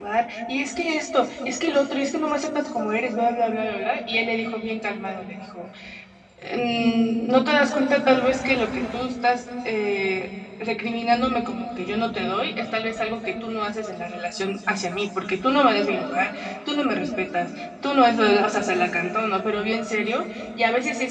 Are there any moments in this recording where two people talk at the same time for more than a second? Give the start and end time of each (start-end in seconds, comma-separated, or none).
none